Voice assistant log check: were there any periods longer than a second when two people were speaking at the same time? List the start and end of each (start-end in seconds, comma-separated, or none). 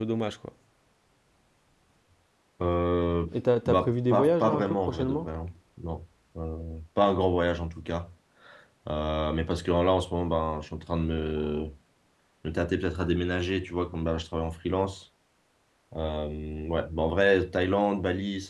3.7-5.3